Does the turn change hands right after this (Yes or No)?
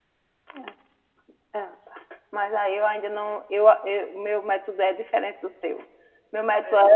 No